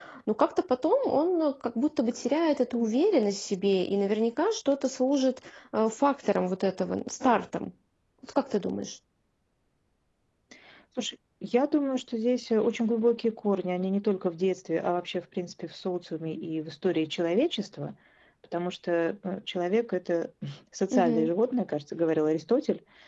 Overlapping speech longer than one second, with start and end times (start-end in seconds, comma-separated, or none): none